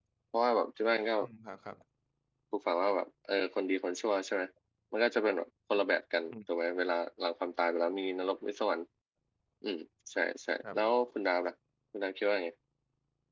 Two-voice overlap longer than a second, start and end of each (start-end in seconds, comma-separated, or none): none